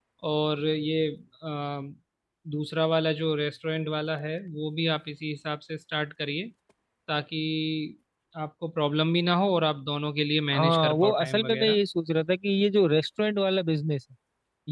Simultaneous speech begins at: 10.5 s

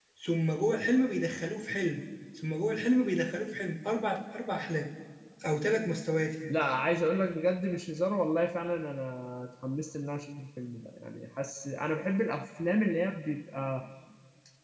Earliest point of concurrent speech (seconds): none

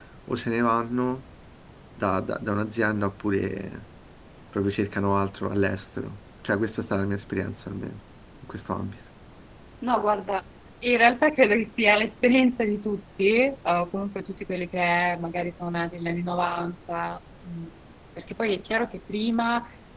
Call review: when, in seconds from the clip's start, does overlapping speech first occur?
none

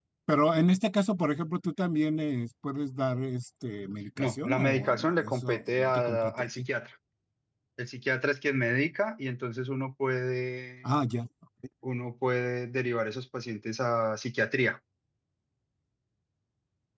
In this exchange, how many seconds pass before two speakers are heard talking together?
4.2 s

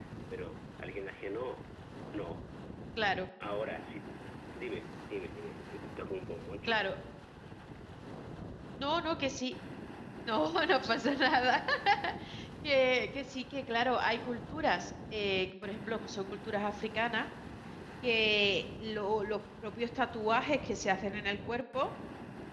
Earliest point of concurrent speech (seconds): none

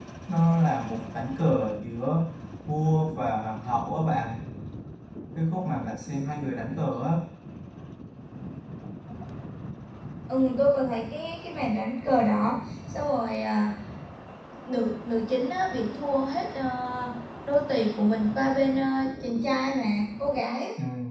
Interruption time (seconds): none

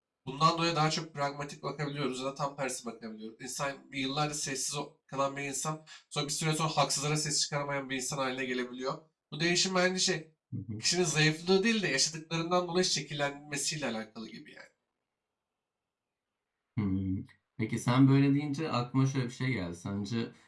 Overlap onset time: none

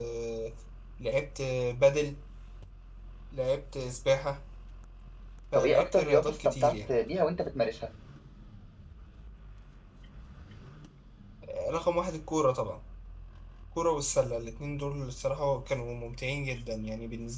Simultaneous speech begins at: 5.5 s

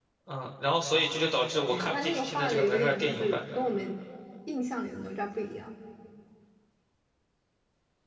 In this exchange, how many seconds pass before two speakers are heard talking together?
1.7 s

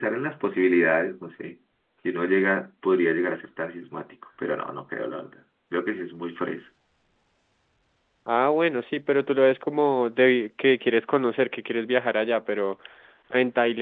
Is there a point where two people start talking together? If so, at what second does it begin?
none

